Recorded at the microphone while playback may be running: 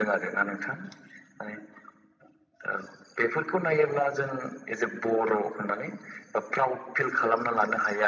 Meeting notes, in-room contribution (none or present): none